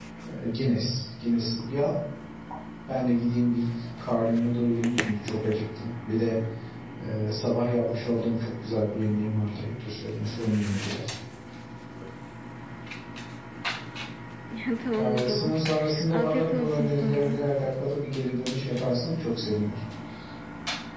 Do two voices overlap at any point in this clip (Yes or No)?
Yes